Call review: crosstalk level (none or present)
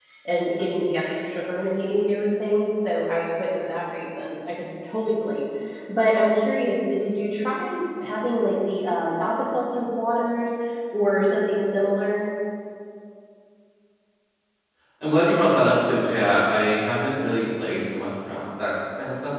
none